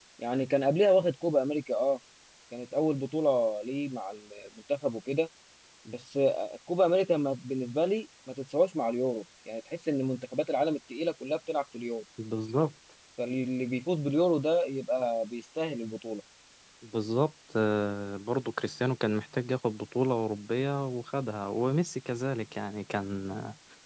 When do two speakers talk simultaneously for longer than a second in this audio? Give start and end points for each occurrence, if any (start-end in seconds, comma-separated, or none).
none